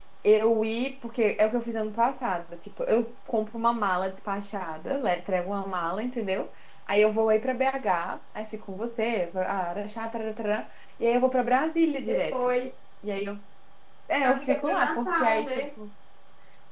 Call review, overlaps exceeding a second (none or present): present